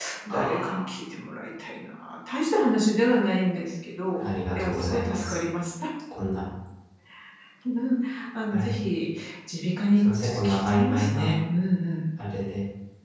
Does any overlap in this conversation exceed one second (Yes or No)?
Yes